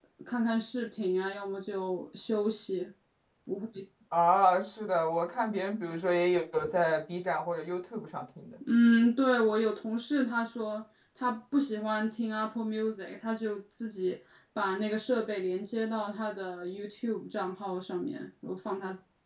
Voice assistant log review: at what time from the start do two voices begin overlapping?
none

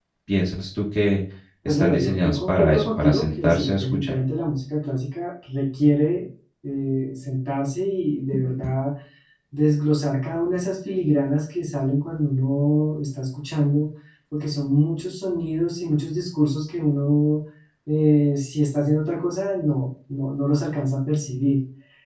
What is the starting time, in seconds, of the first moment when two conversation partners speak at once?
1.6 s

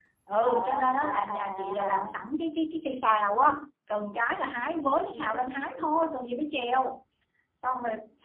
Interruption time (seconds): 0.5 s

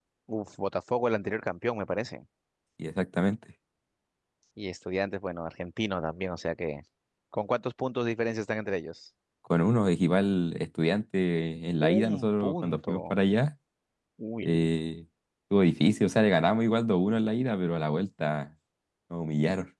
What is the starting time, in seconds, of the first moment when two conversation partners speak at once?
11.8 s

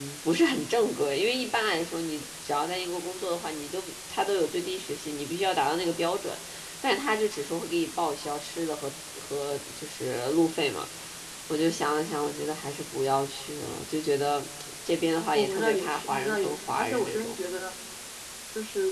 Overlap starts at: 15.3 s

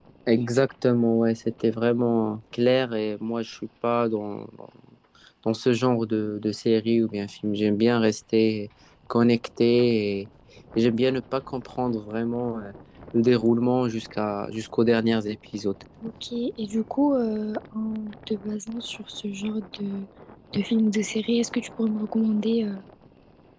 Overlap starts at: none

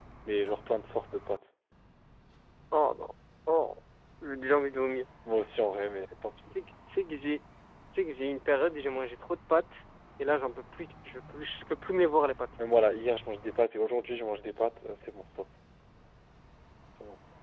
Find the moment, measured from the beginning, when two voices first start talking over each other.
none

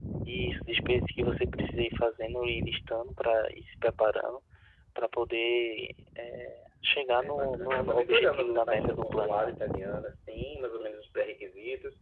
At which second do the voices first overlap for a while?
7.2 s

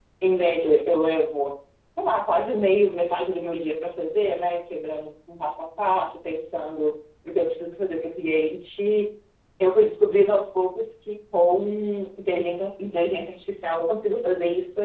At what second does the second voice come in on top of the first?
none

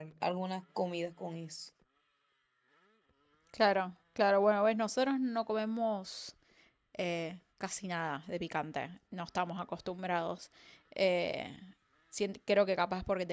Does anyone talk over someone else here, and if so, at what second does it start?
none

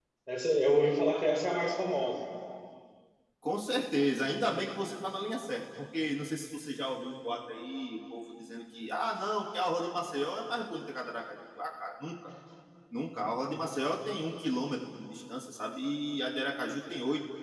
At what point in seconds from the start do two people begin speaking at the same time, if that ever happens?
none

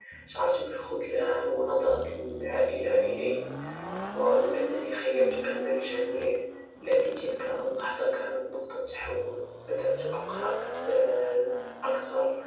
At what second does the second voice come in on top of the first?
none

